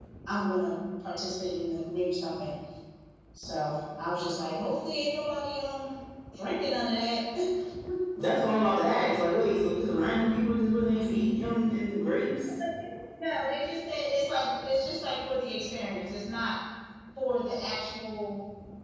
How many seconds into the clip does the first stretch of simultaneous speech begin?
none

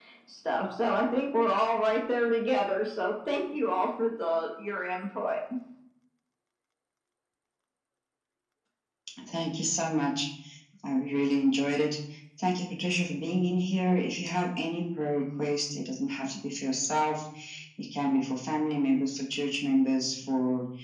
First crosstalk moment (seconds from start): none

